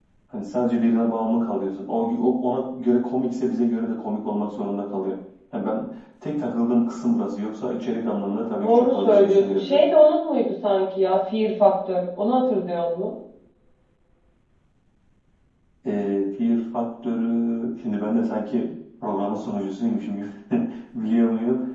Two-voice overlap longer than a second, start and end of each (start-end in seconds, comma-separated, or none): 8.6-9.8